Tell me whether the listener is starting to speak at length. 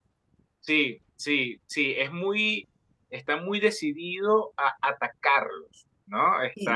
Yes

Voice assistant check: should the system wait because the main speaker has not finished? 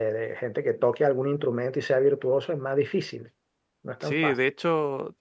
No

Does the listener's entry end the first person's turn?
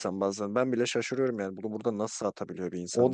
Yes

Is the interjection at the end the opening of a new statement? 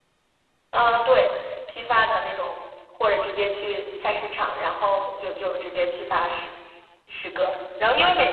No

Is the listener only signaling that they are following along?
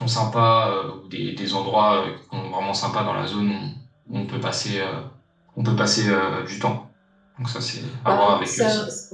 No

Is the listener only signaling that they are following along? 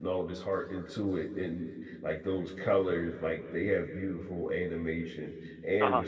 Yes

